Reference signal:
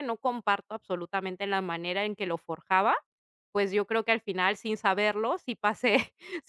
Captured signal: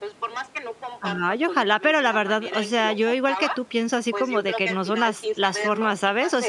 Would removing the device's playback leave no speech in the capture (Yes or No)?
No